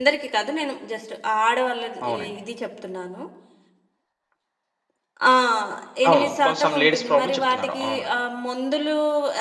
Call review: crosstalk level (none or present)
present